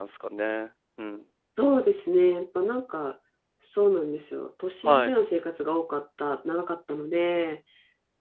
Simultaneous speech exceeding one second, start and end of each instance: none

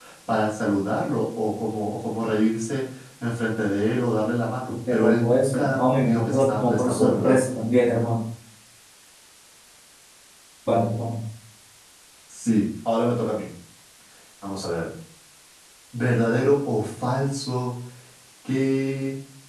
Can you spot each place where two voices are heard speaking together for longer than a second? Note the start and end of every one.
4.7-7.3

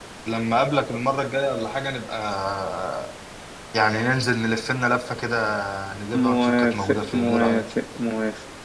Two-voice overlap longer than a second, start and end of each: 6.1-7.6

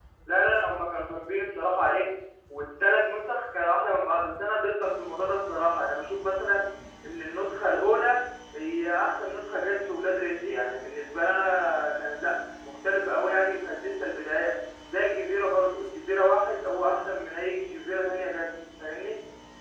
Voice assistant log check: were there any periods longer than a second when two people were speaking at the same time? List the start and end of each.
none

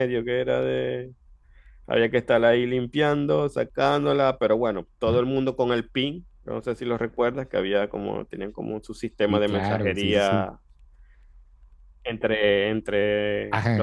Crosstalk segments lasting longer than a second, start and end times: 9.3-10.5

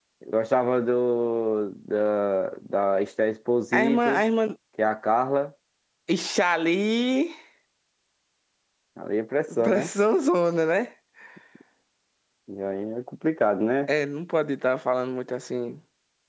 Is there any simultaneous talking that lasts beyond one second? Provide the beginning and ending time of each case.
none

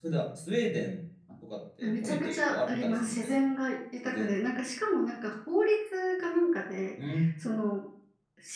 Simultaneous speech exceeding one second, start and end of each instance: 1.8-3.4

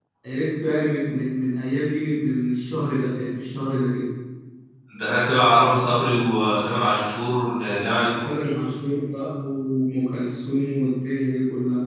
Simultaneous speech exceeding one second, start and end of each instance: none

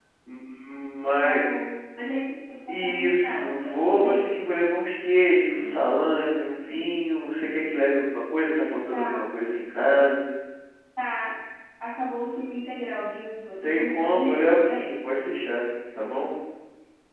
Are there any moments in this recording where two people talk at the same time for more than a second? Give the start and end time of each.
2.7-4.3, 13.6-15.0

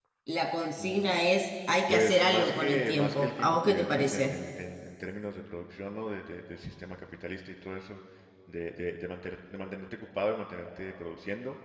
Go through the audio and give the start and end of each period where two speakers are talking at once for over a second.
1.9-4.3

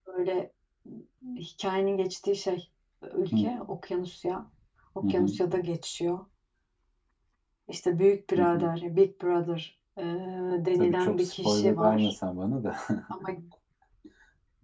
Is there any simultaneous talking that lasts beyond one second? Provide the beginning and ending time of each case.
10.7-12.1

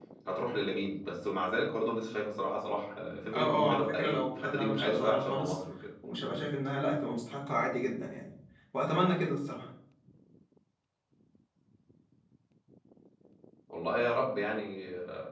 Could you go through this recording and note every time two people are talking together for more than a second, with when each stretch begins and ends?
3.3-5.6

